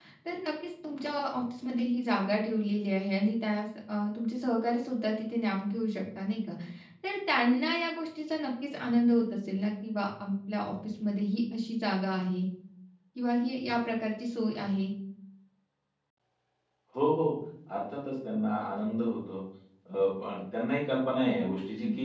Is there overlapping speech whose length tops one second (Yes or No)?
No